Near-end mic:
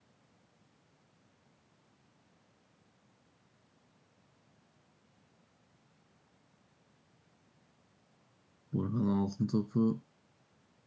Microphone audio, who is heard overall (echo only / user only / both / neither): user only